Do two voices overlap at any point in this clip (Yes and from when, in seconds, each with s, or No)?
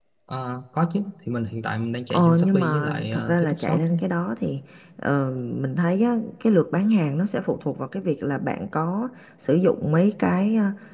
Yes, from 2.1 s